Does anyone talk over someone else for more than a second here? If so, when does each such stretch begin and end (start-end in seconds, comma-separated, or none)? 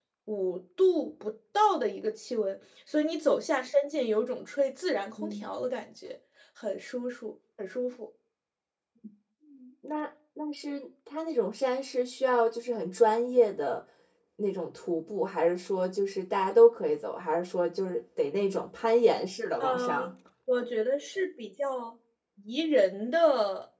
none